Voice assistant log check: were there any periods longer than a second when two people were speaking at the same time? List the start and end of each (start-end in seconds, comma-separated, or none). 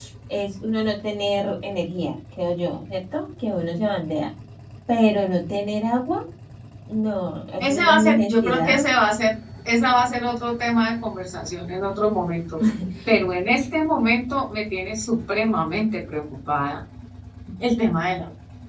7.6-8.8